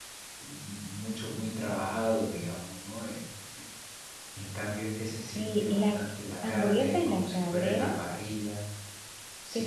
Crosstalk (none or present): present